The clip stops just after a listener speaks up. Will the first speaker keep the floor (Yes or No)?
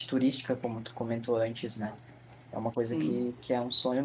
Yes